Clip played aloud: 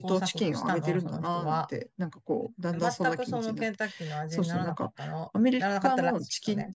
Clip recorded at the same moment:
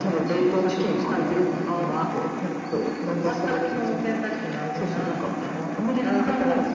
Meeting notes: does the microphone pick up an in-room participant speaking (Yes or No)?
No